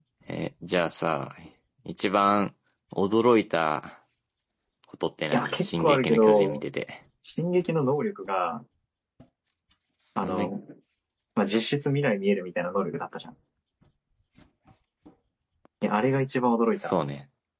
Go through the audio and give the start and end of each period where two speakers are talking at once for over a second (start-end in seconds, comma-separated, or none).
5.3-6.6